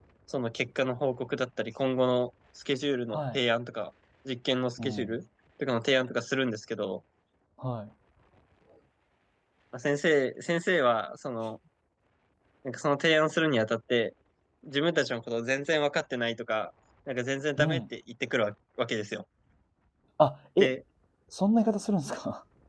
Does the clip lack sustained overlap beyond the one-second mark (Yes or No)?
Yes